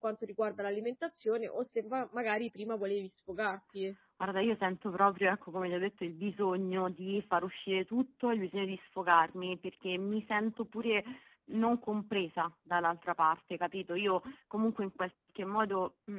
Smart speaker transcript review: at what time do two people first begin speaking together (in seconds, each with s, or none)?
none